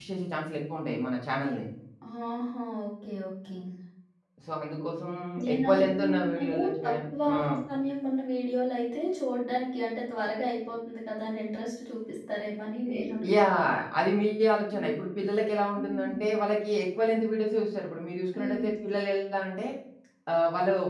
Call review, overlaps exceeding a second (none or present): present